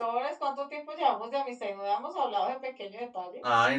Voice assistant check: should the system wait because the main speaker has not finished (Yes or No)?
No